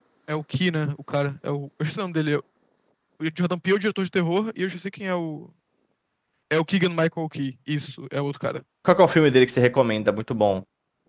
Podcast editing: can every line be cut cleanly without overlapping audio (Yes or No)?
Yes